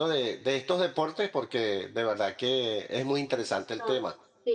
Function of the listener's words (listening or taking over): taking over